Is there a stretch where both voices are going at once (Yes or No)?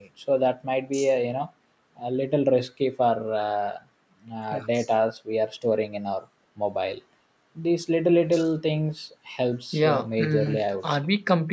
Yes